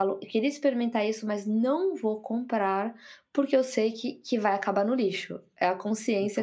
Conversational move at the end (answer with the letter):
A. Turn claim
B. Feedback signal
A